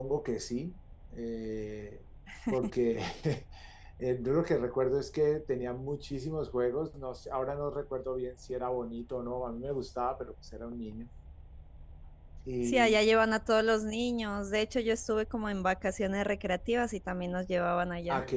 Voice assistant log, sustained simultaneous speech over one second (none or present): none